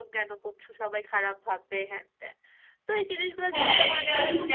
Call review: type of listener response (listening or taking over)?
taking over